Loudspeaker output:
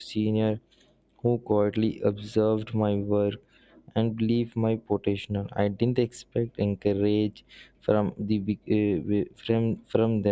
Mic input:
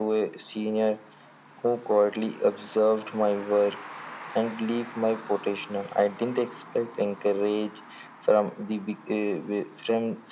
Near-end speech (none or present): none